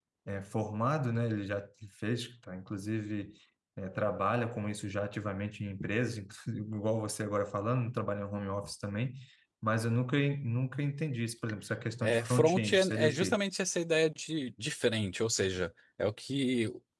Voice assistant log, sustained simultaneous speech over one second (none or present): present